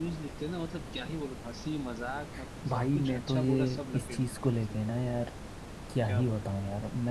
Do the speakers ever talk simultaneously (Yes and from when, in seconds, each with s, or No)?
Yes, from 2.7 s